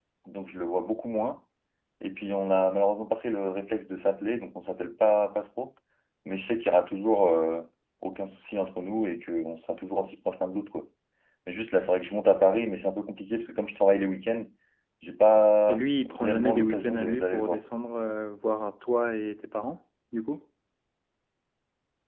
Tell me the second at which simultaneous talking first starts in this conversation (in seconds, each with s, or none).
15.7 s